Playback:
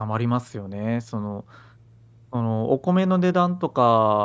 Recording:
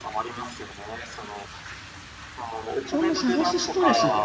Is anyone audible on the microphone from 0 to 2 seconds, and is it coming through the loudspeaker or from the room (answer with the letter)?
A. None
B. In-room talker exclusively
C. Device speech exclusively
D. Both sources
C